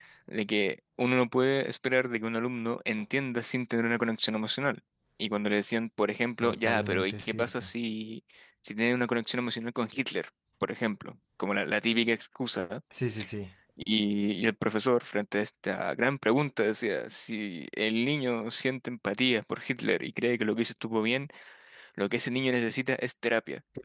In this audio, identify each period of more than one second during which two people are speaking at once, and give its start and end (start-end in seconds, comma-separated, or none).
6.4-7.7